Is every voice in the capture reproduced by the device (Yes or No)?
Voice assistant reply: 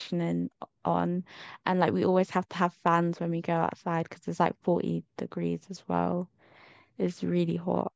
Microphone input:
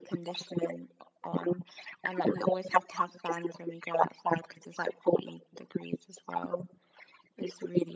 Yes